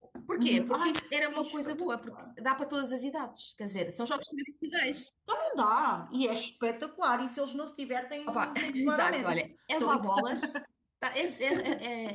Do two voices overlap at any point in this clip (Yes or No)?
Yes